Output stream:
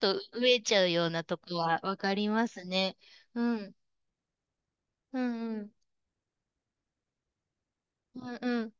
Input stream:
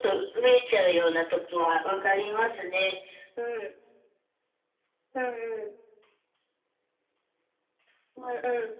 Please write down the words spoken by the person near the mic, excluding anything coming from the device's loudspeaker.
none

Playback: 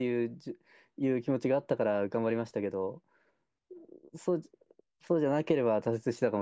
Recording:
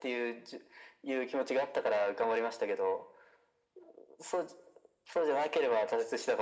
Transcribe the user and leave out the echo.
none

